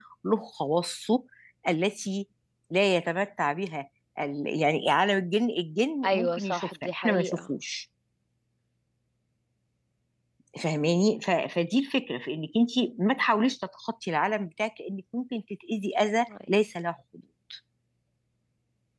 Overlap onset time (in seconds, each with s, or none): 6.0 s